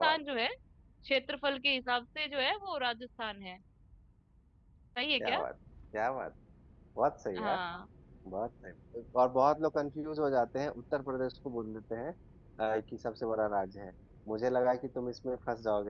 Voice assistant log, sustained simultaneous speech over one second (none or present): none